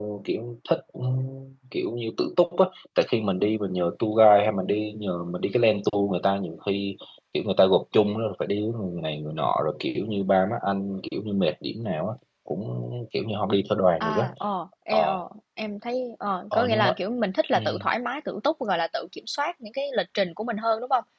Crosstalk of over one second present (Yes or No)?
No